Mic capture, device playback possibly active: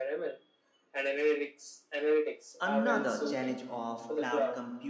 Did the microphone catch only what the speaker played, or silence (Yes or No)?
No